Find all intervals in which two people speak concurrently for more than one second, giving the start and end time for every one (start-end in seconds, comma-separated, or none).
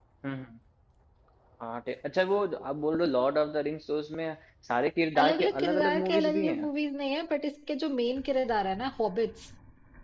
5.2-6.7